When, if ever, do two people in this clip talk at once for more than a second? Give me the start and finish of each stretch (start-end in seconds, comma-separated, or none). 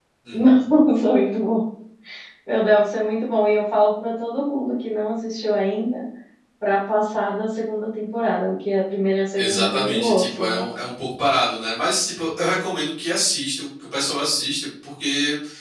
9.4-10.7